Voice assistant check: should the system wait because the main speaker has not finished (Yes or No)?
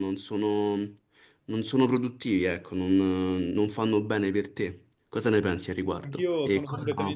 No